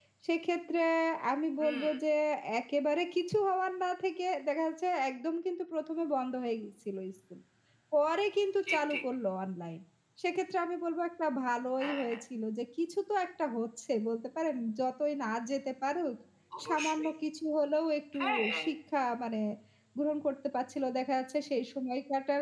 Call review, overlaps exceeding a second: none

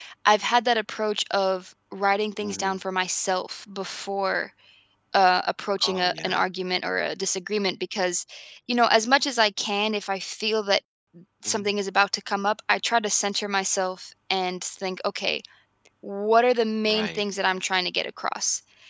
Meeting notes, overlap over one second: none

